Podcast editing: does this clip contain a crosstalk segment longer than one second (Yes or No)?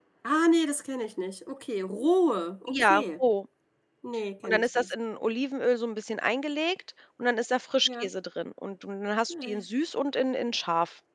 No